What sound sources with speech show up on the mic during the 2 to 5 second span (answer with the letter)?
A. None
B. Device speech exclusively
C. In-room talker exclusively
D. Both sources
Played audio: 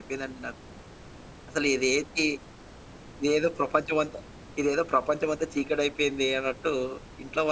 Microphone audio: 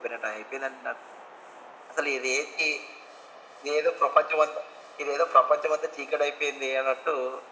B